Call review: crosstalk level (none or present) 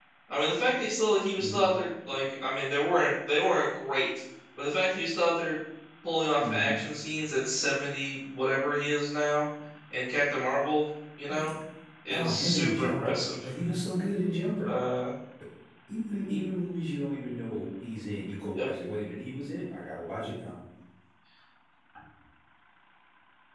present